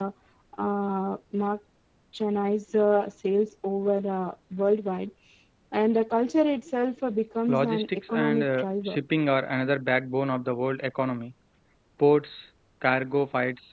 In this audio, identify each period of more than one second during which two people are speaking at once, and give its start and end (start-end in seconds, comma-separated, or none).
7.5-9.0